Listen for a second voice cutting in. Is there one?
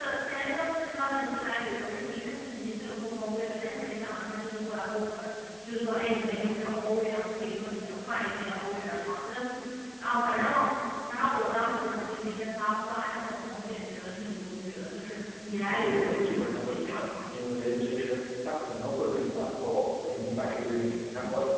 Yes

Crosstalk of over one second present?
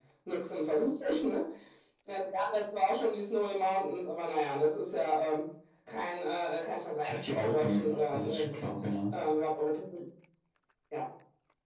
Yes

